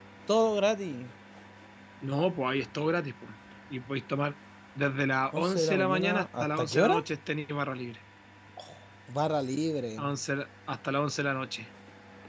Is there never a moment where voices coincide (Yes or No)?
No